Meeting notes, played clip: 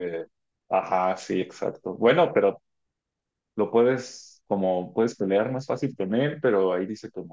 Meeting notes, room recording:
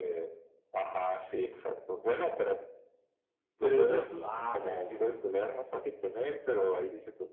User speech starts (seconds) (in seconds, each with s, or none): 3.6 s